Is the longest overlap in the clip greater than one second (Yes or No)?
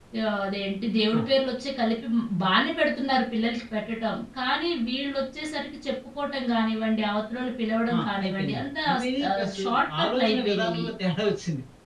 Yes